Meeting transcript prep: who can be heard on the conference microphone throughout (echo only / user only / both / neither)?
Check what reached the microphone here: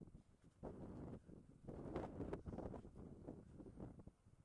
neither